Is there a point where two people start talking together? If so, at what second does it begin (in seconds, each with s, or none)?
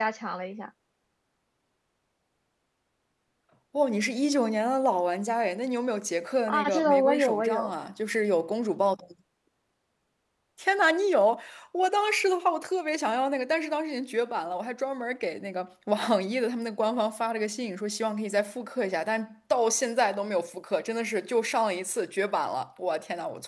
6.5 s